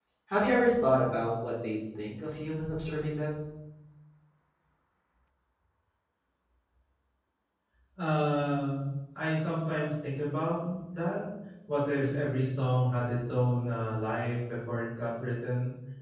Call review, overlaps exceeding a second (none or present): none